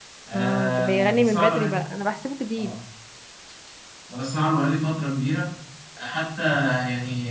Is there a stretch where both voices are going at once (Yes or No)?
Yes